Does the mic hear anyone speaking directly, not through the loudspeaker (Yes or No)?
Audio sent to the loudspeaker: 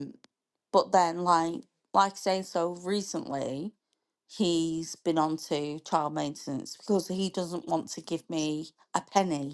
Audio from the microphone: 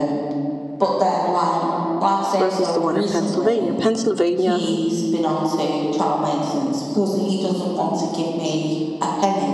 Yes